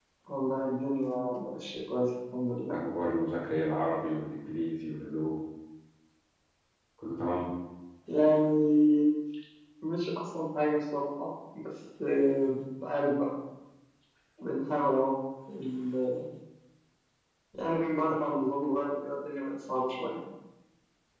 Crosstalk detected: No

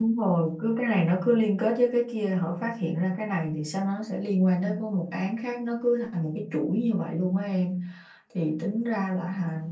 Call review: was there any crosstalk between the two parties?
No

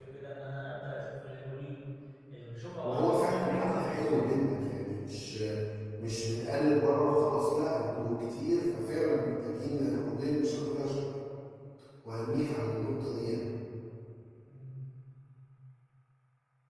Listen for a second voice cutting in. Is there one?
Yes, from 2.8 s

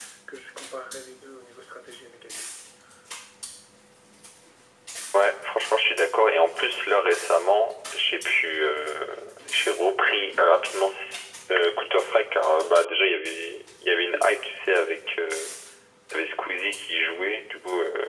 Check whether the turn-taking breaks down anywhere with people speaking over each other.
No

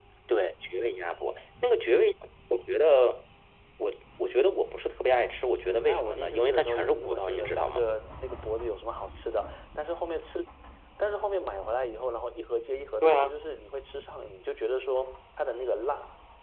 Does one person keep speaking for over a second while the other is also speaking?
Yes, from 5.9 s

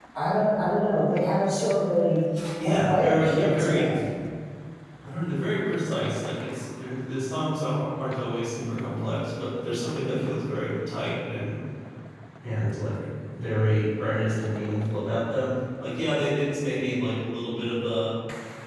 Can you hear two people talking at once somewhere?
Yes, from 2.6 s

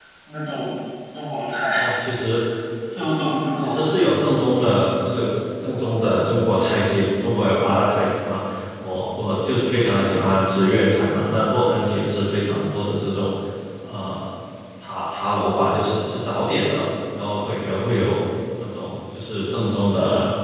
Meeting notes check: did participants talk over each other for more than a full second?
No

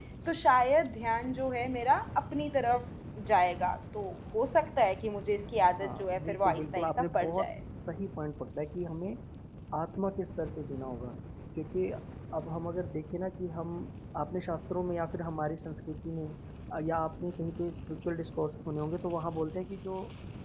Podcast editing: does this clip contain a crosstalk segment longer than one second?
Yes, from 5.7 s

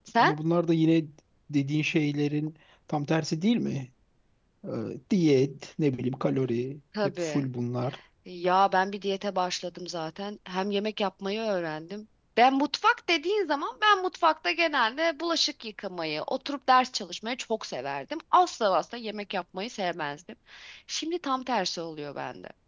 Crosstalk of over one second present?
No

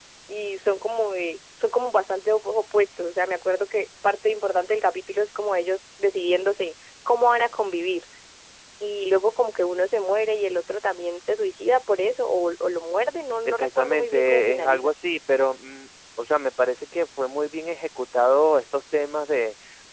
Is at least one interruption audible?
Yes, from 13.4 s

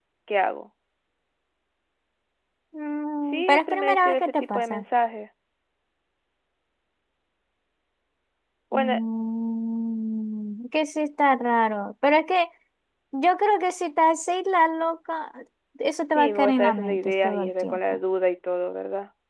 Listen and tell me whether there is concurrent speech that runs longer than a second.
Yes, from 3.3 s

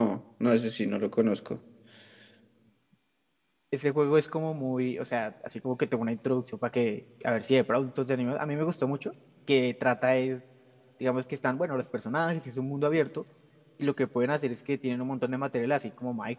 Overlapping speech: No

